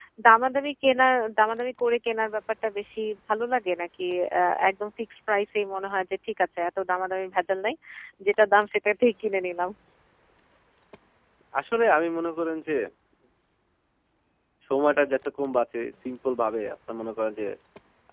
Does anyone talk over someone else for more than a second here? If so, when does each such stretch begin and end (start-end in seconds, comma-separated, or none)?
none